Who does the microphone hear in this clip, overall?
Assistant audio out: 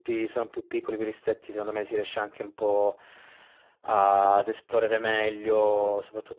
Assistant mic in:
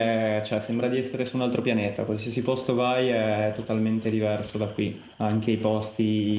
user only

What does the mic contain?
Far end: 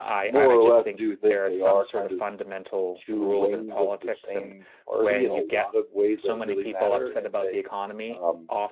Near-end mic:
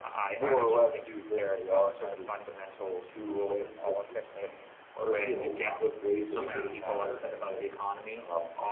both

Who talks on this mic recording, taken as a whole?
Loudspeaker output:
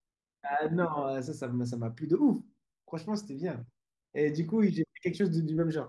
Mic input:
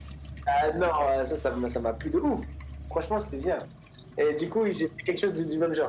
echo only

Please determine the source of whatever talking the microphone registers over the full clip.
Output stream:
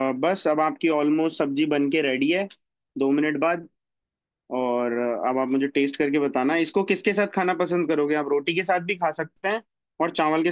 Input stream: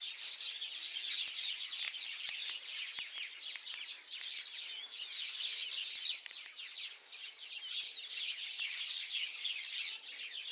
neither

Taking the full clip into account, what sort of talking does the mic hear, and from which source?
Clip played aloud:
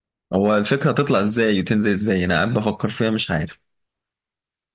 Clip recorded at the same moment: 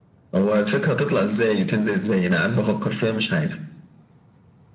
echo only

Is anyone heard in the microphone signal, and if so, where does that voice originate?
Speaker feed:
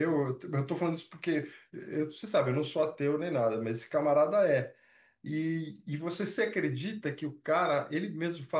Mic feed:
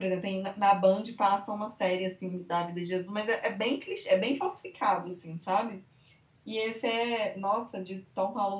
user only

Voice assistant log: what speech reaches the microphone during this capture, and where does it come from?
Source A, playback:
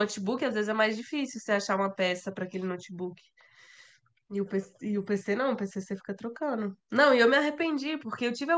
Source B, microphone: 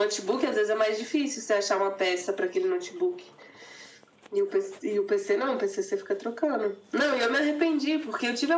echo only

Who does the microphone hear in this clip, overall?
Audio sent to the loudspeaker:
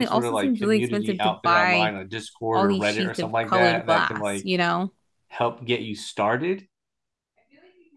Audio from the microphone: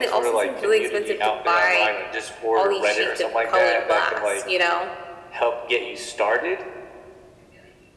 echo only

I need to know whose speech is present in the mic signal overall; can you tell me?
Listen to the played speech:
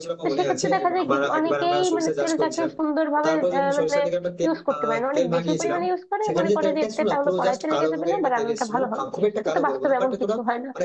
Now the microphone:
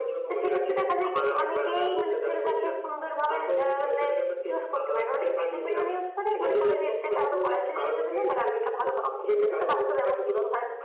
echo only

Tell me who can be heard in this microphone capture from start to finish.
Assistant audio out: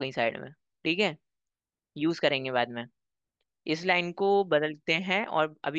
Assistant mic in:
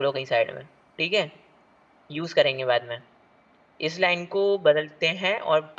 echo only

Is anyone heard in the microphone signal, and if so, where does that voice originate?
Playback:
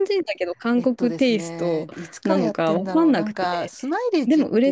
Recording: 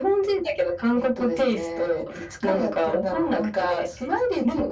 echo only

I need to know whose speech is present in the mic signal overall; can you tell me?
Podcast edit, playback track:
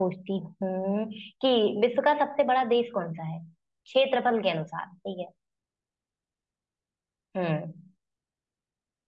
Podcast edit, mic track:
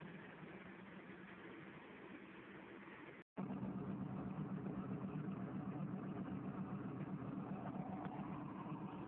neither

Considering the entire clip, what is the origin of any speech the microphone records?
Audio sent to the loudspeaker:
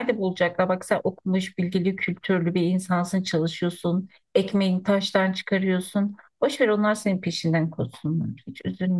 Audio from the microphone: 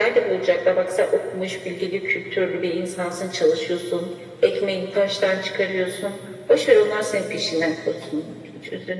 echo only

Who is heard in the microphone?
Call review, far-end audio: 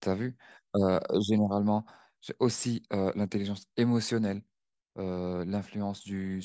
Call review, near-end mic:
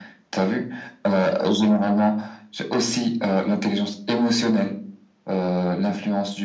echo only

